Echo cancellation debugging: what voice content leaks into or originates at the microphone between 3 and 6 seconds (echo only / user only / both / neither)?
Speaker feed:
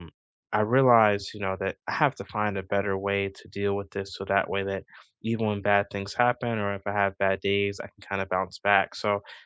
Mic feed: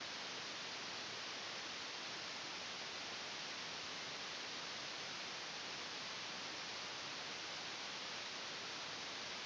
neither